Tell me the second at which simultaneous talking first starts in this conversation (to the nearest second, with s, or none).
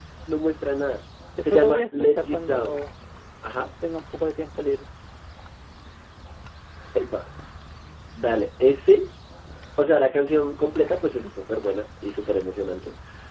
2 s